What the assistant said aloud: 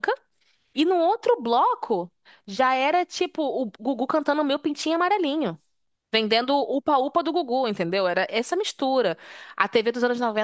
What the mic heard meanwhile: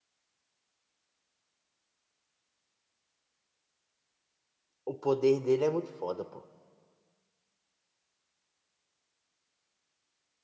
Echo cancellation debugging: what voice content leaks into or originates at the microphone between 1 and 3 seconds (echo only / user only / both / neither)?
neither